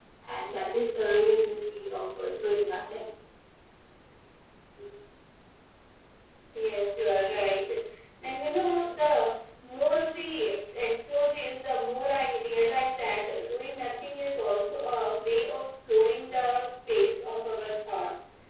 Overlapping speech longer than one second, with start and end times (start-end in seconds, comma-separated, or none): none